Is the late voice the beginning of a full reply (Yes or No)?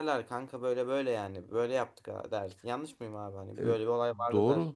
Yes